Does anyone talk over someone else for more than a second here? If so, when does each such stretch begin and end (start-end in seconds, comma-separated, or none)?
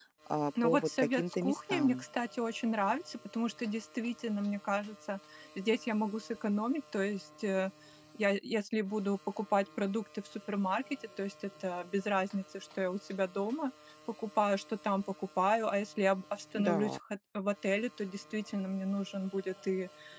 0.6-2.0